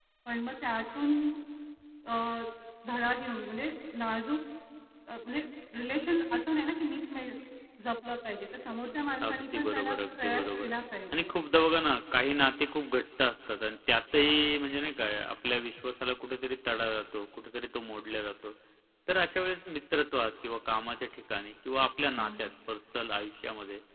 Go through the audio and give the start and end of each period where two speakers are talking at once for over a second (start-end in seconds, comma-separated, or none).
9.3-10.7